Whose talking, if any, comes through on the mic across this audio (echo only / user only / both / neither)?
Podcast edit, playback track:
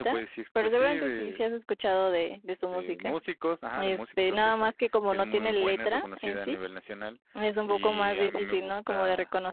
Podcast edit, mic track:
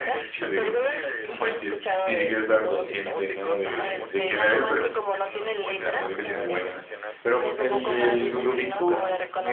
both